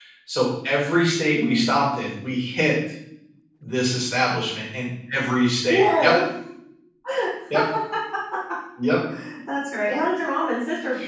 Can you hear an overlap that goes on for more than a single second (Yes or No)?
No